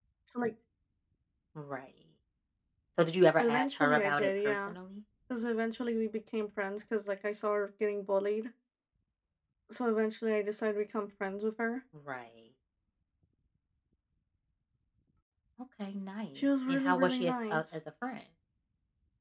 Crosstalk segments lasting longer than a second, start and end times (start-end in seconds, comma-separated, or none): 3.4-4.7, 16.4-17.8